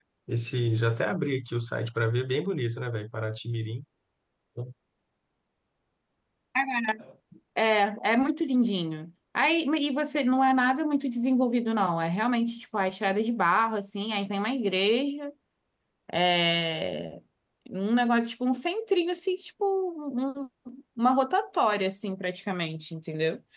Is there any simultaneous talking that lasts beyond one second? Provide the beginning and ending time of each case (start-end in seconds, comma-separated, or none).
none